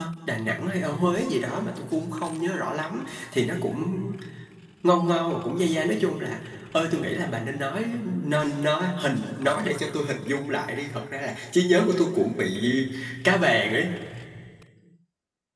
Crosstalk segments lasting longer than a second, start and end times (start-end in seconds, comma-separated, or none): none